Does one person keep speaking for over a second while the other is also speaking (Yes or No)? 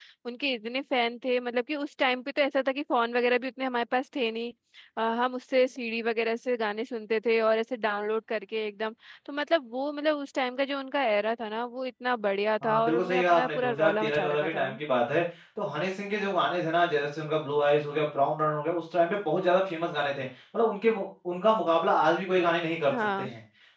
Yes